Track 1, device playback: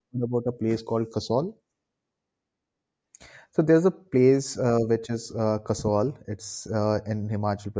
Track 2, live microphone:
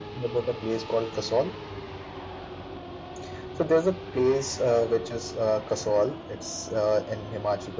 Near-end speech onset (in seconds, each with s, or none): none